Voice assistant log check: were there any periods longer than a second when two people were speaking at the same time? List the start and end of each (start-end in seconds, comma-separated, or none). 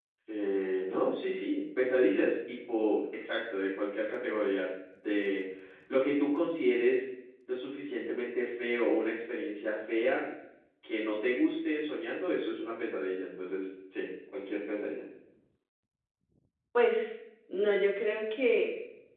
none